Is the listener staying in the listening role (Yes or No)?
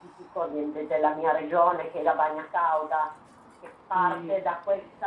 Yes